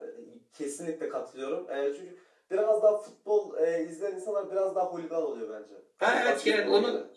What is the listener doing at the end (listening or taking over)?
taking over